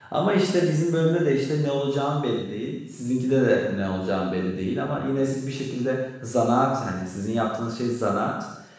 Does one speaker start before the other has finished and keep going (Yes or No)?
No